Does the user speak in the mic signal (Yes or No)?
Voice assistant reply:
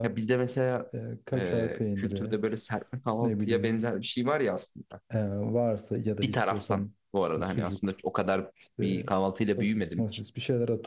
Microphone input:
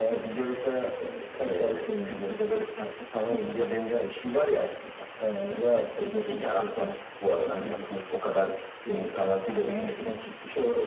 No